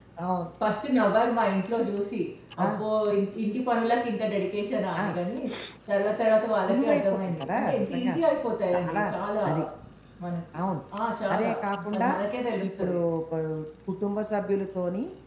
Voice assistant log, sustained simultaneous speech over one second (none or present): present